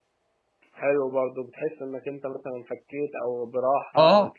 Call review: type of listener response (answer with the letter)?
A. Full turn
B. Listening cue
A